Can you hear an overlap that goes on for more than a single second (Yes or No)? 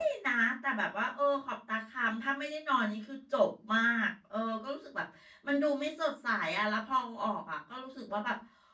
No